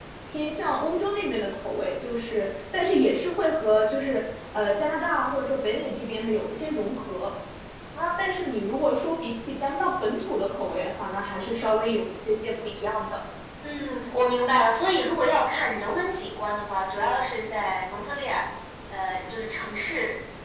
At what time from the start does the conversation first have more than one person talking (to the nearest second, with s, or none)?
none